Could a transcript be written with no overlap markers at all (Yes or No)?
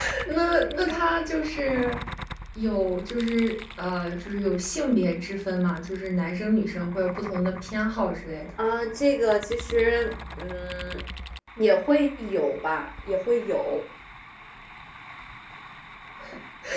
Yes